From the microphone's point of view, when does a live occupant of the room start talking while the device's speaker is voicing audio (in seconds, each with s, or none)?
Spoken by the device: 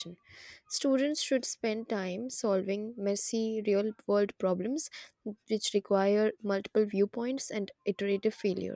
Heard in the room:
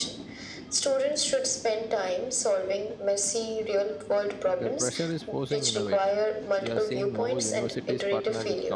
4.5 s